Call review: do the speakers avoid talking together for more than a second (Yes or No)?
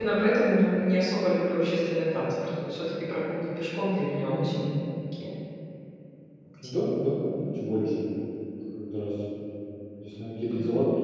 Yes